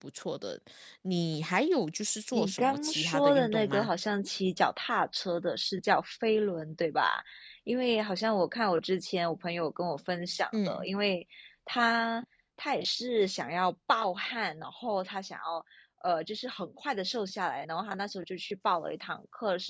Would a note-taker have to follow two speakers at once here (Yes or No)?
Yes